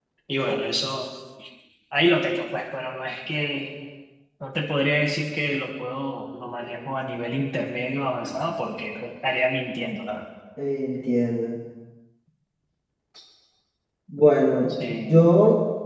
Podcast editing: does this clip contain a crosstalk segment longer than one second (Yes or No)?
No